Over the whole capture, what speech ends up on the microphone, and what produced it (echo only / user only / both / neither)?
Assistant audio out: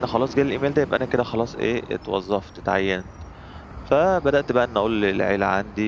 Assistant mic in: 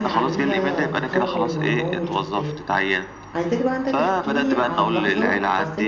both